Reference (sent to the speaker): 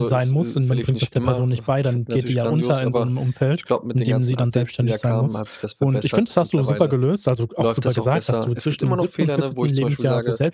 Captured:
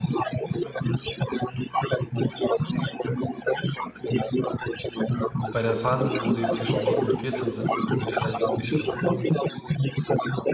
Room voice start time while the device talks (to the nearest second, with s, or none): 5 s